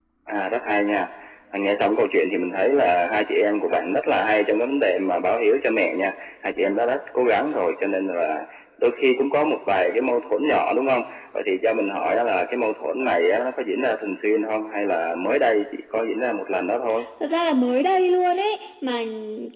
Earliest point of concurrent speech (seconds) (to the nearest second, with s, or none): none